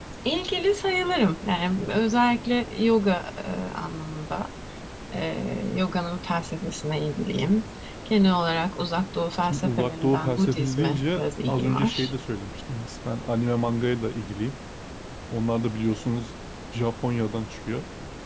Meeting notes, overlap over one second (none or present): present